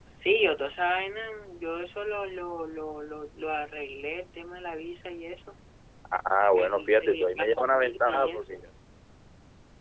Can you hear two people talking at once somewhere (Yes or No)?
Yes